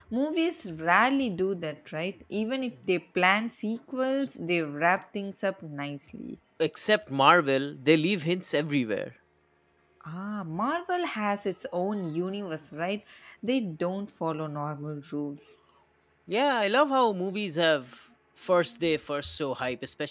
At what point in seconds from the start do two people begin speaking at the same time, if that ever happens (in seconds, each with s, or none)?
none